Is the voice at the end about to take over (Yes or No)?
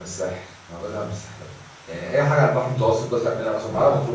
No